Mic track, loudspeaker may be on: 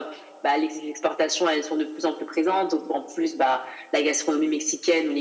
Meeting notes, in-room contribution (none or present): none